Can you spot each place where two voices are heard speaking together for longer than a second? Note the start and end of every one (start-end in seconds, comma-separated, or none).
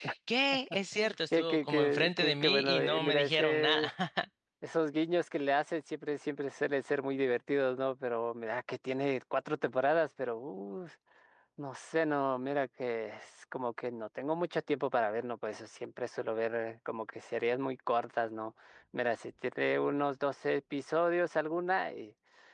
0.9-3.9